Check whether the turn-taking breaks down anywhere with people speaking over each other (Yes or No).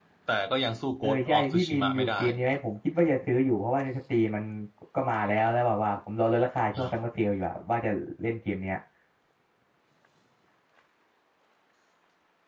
Yes